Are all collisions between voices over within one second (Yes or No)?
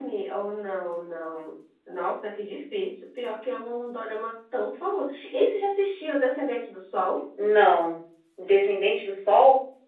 Yes